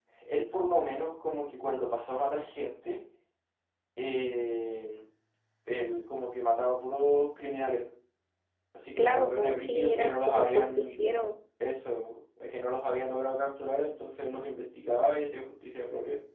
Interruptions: present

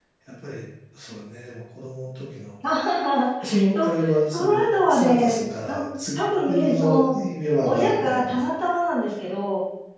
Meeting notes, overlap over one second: present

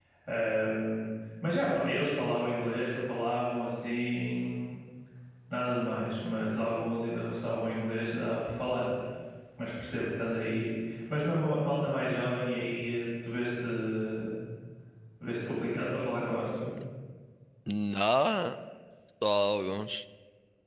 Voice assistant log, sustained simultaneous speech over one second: none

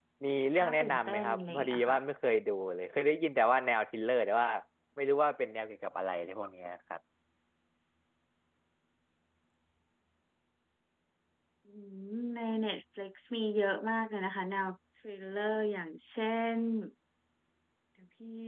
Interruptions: present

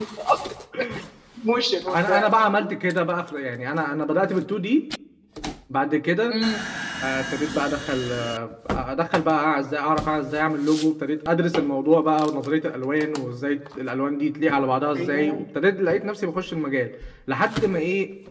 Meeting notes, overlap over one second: none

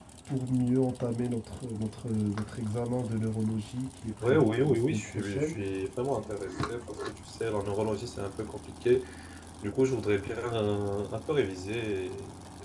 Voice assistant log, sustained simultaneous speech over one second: present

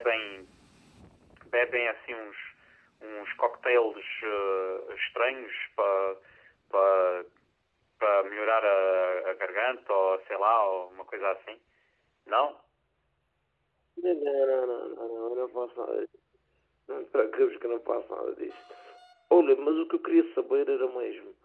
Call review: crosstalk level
none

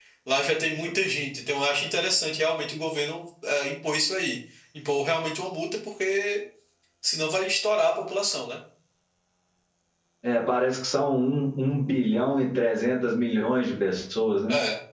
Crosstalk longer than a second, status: none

